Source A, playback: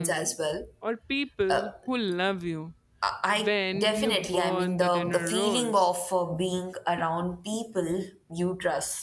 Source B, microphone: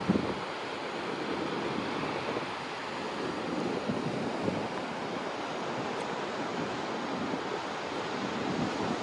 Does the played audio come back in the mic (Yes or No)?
No